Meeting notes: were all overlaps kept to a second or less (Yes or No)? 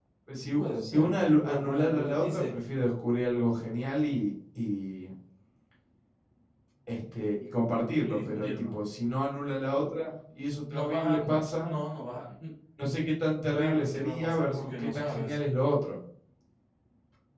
No